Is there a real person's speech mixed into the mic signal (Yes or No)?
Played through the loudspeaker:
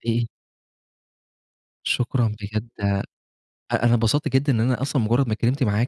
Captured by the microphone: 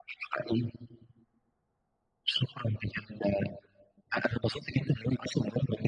No